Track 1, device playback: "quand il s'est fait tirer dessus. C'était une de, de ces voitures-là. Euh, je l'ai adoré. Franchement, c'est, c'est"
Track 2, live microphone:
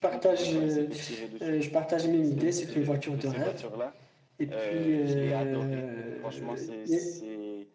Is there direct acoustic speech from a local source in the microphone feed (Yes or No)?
Yes